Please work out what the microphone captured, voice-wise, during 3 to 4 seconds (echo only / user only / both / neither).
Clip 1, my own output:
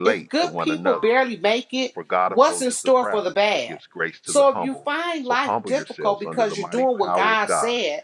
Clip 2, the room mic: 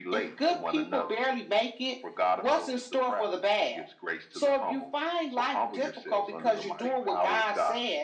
echo only